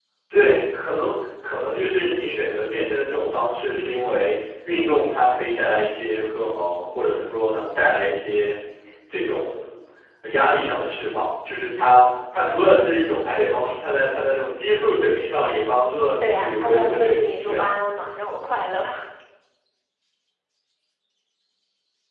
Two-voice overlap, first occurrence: 16 s

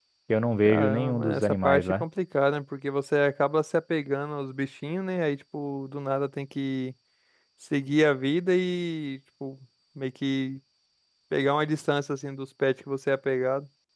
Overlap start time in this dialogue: 1 s

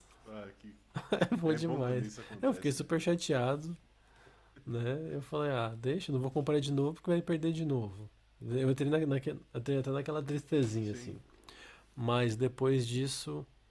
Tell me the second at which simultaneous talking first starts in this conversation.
1 s

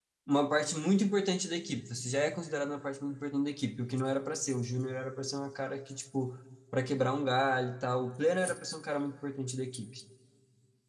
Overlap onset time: none

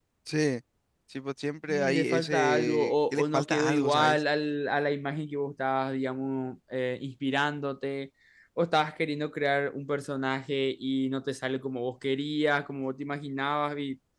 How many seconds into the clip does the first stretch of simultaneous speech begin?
2 s

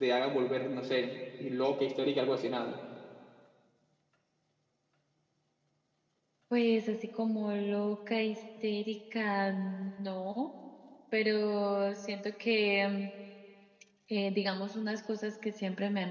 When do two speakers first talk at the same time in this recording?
none

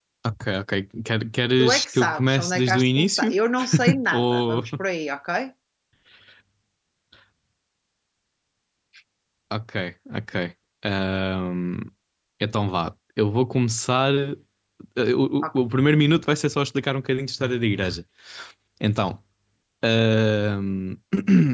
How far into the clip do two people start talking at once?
2 s

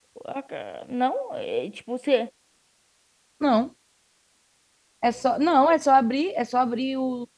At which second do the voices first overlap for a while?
none

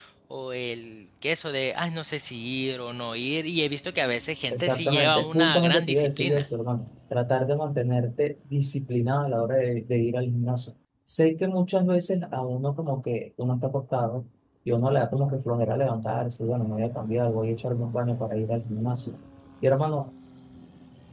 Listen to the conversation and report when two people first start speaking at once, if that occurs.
5 s

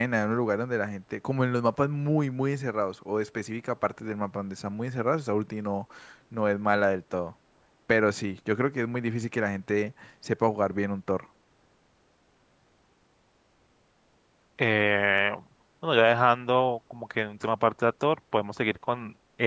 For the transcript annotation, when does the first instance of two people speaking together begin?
none

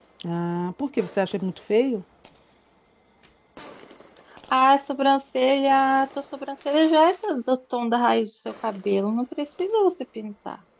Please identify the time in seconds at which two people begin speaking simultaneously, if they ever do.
none

